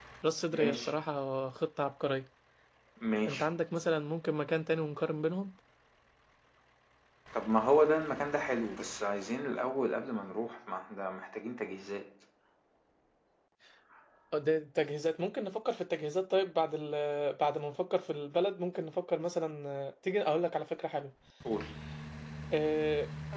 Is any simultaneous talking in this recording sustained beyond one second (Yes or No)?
No